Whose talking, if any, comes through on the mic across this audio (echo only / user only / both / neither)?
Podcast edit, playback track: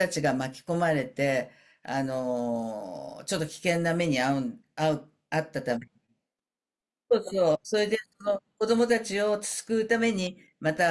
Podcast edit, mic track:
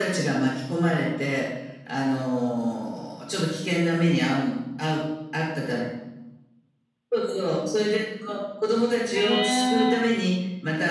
both